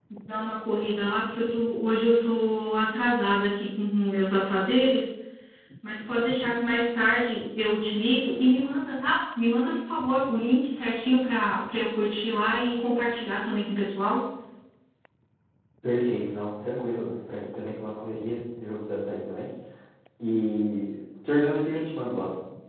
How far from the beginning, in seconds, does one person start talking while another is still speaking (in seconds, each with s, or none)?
none